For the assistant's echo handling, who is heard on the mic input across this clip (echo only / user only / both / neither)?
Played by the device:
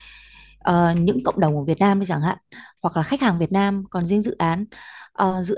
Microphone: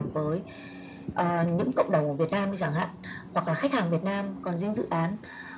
echo only